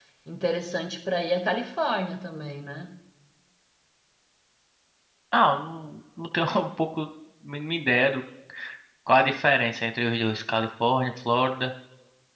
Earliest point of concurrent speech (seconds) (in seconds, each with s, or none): none